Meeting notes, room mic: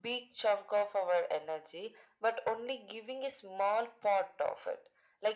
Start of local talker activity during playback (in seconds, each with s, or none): none